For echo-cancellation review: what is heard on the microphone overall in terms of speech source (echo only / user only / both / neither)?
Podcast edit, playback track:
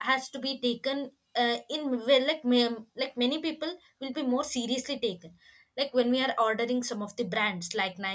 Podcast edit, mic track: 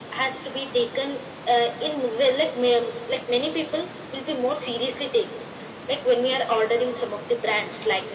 echo only